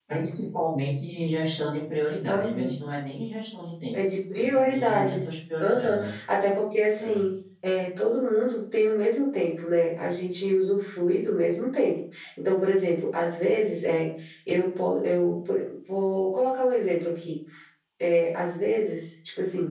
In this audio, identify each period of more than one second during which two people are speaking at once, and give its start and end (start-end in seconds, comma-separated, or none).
4.4-6.1